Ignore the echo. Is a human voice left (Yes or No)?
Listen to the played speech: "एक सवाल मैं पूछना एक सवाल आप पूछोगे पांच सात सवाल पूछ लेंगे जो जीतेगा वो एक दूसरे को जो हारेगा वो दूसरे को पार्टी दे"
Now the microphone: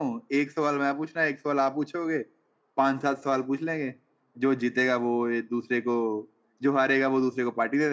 No